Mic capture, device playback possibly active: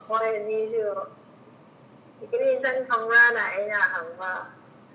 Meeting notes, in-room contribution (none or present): none